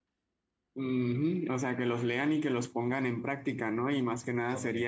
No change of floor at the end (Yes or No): Yes